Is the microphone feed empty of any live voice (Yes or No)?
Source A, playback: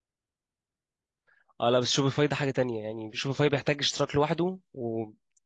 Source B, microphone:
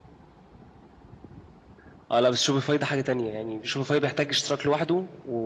Yes